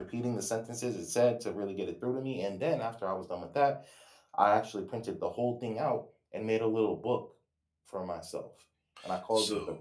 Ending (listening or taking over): taking over